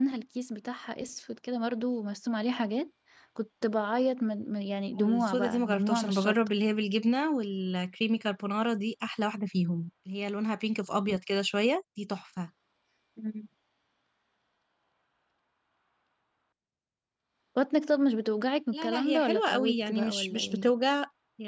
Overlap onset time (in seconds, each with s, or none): 5.0 s